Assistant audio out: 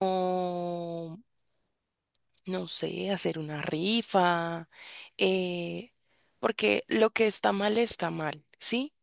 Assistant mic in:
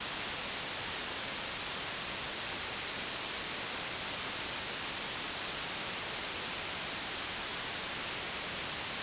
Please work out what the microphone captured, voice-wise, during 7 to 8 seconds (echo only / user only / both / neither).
neither